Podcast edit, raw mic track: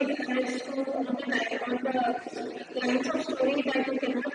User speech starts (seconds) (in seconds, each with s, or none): none